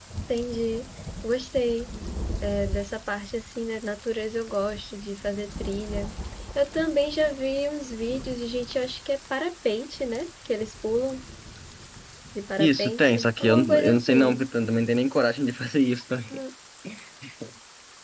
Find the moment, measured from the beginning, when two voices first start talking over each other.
12.6 s

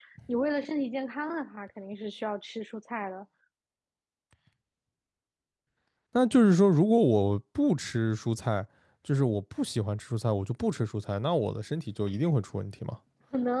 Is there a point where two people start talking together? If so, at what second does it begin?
none

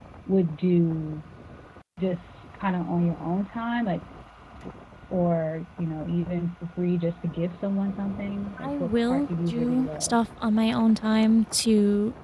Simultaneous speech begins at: 8.6 s

